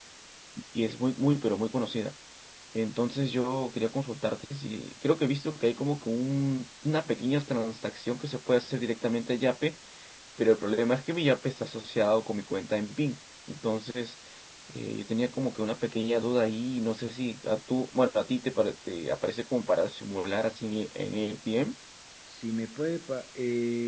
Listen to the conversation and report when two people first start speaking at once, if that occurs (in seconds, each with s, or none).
none